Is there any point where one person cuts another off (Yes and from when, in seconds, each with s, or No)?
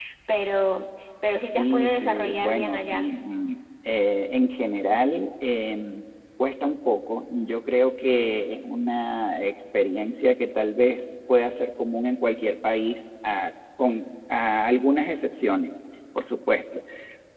Yes, from 1.6 s